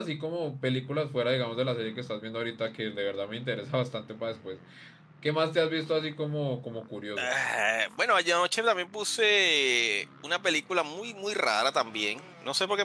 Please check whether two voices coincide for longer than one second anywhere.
No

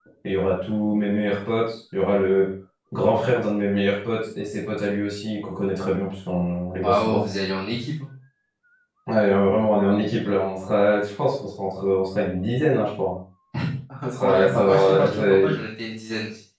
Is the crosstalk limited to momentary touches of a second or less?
No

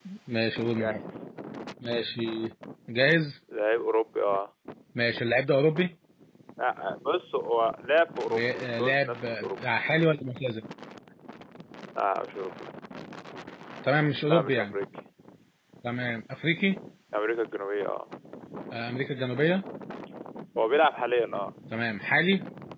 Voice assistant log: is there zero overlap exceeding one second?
No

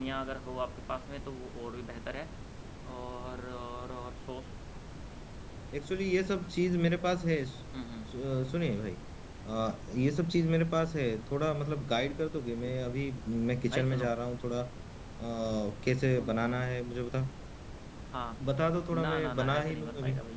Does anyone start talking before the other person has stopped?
Yes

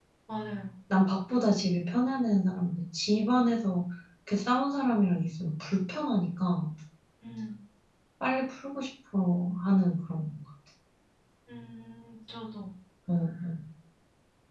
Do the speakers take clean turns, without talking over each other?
Yes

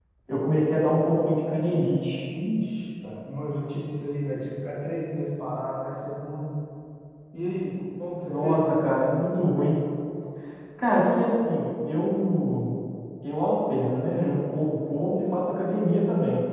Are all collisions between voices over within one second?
Yes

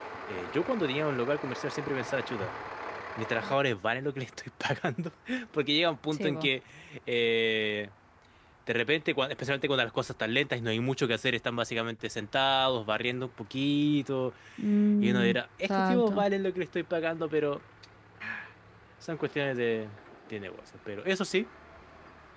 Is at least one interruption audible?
Yes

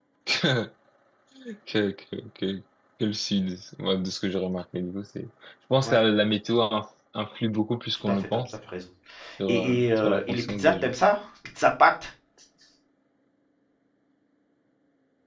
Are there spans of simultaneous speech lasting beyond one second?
Yes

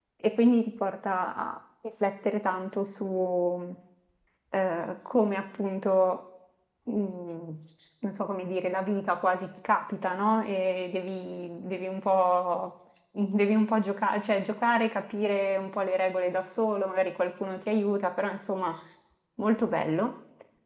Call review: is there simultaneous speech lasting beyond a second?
No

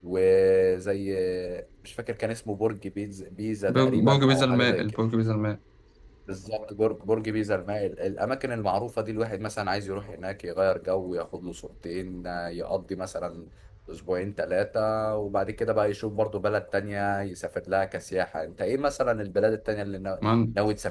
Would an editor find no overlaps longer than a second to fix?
No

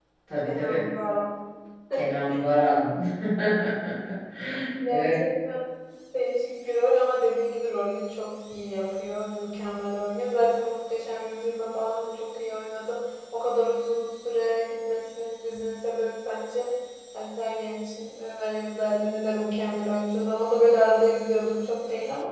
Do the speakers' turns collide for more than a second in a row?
No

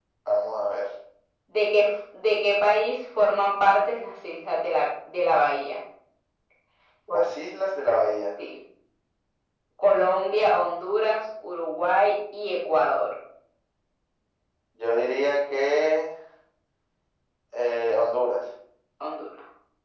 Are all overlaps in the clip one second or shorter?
Yes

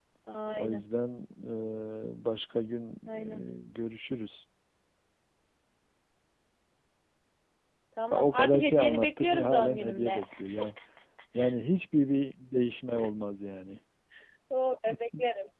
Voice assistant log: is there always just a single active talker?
No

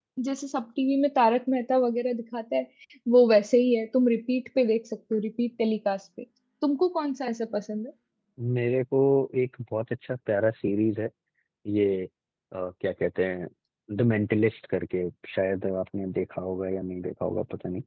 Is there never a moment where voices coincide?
Yes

